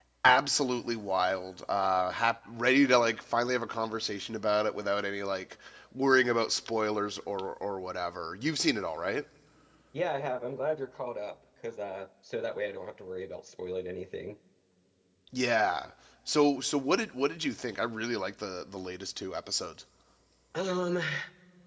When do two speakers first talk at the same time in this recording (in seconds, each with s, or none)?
none